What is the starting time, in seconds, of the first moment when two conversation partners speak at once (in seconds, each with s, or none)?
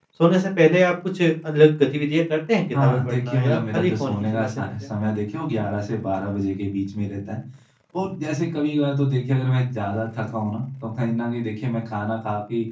2.7 s